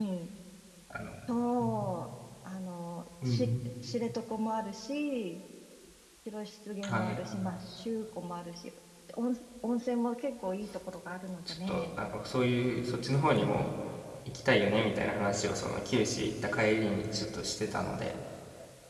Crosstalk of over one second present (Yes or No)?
No